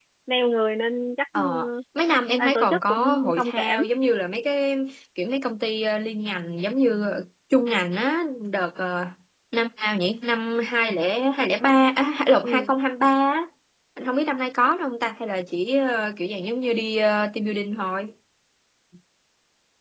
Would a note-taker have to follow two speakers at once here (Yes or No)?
Yes